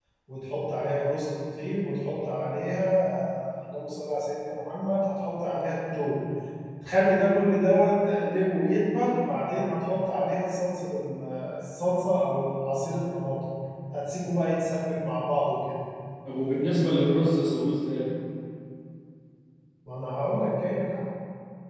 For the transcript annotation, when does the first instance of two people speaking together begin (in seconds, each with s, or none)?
none